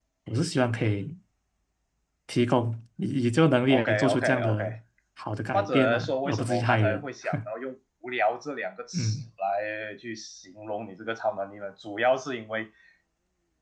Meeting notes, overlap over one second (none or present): present